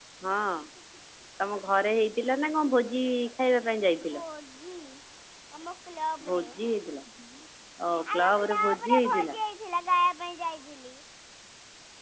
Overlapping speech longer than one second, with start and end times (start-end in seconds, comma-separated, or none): 8.1-9.3